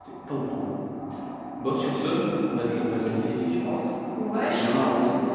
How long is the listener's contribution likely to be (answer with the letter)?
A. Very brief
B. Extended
B